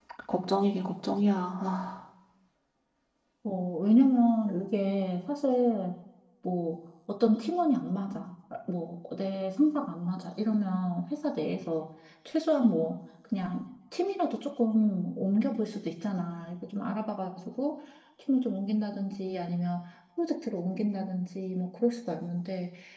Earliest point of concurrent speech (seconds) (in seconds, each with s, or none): none